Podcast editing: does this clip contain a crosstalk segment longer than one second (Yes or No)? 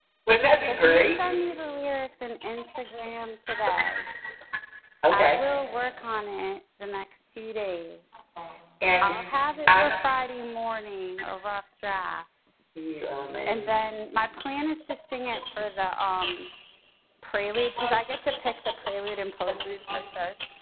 No